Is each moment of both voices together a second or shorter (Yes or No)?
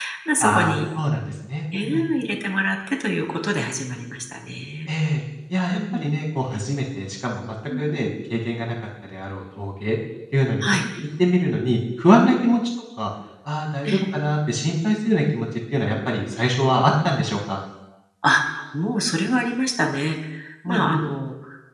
Yes